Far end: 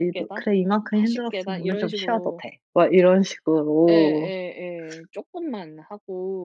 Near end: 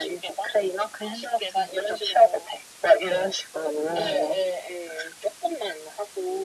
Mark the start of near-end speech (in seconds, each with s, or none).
none